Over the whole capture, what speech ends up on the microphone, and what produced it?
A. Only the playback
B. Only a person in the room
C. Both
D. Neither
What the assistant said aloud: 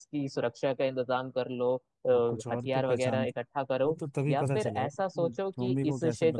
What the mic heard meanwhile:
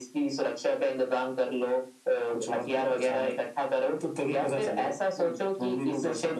A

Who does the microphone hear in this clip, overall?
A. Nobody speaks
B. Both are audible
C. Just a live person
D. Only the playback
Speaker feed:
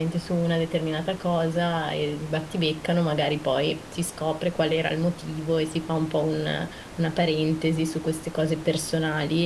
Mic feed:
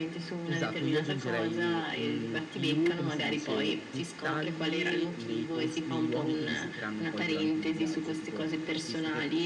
B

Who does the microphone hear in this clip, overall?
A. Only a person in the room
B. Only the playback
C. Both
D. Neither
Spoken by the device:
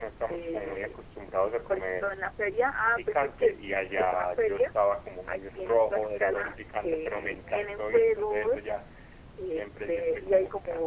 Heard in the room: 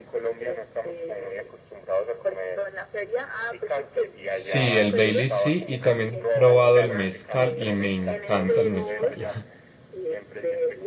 C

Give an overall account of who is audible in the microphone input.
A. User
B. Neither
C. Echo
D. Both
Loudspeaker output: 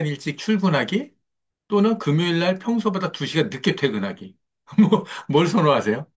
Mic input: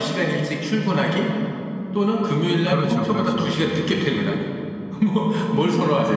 D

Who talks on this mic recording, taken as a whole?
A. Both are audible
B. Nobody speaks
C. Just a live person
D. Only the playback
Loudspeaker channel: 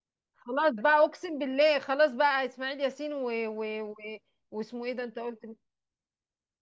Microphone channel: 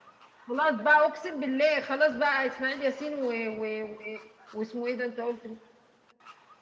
D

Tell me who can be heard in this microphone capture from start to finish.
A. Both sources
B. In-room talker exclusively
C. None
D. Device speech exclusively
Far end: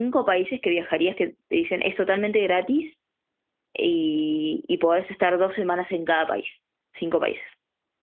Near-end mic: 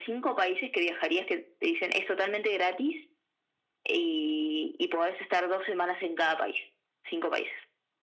D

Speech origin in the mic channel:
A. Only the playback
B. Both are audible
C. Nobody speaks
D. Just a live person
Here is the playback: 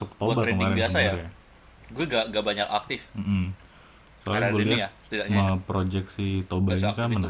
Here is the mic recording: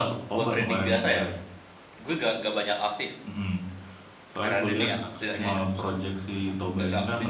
B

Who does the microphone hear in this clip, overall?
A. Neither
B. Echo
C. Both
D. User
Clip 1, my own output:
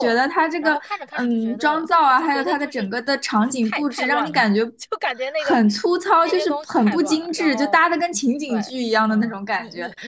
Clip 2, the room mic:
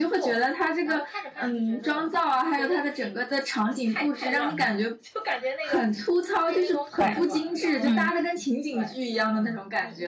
C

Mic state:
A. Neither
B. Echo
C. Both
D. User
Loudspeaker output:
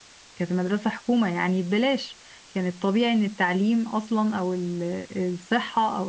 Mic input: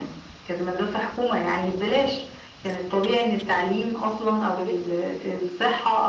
C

